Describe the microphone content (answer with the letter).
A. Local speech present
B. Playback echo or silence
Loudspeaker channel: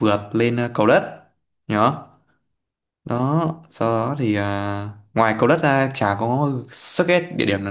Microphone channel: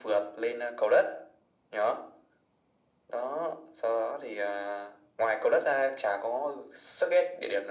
B